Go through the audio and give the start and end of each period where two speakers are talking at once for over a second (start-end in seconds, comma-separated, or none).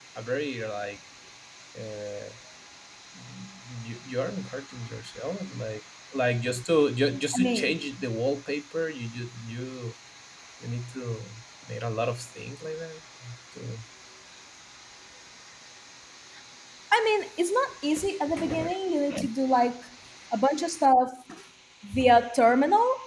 none